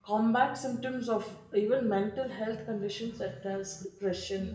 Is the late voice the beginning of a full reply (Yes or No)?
No